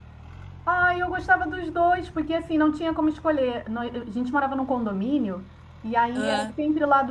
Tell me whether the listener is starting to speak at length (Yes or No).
No